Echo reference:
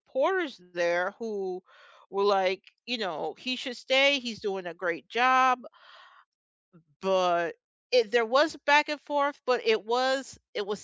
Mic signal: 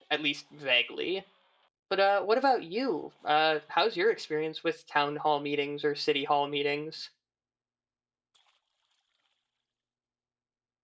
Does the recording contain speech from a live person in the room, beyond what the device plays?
Yes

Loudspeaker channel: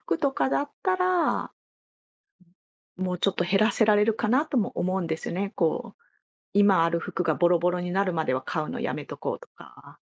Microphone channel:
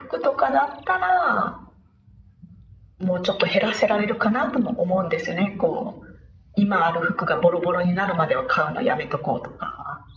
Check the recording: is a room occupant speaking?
No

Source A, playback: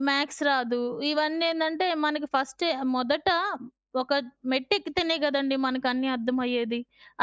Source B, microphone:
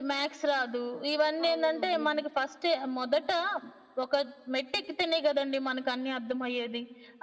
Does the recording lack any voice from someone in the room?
No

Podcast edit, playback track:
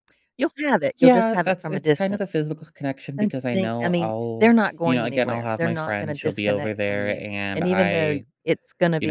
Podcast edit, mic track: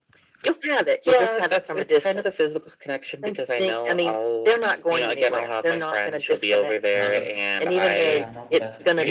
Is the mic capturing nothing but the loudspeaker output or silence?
No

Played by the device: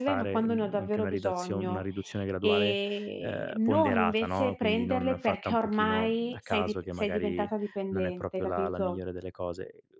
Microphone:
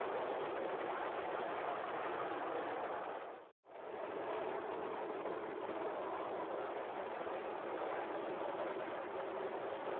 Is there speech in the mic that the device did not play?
No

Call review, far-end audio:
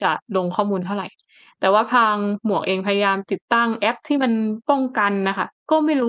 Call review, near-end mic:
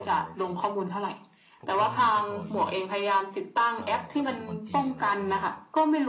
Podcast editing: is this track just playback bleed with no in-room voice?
No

